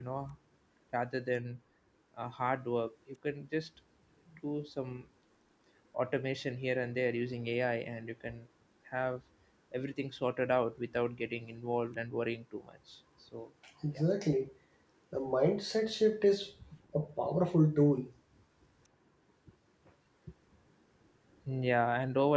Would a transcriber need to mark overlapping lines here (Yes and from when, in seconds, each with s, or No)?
No